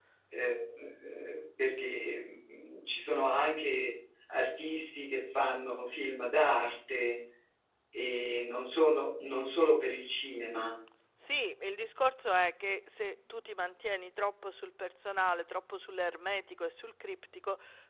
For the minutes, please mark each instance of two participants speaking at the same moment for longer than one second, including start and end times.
none

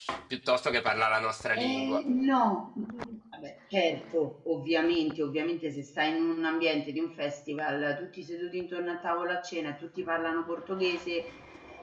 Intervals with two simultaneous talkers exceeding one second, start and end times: none

